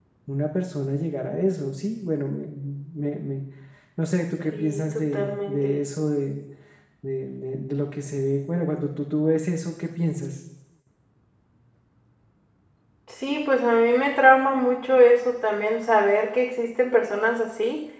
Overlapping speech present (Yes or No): Yes